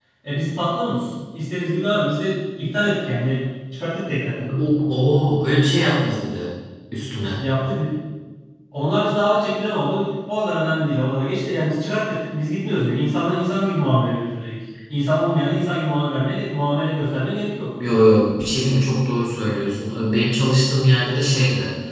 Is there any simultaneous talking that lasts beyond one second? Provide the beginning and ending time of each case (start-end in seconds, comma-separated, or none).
none